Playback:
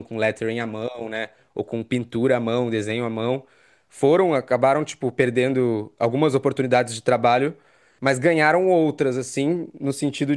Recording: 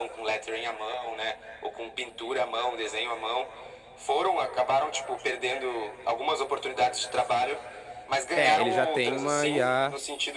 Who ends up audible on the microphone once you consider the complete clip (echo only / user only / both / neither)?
both